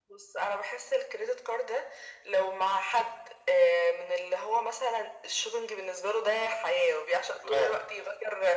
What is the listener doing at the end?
listening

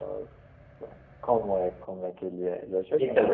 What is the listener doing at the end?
taking over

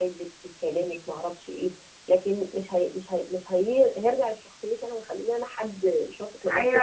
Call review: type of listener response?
taking over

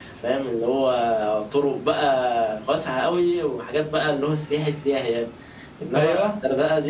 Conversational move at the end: listening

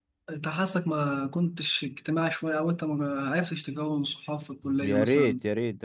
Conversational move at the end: taking over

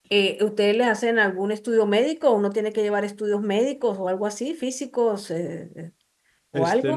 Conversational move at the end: taking over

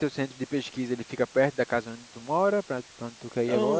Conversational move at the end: taking over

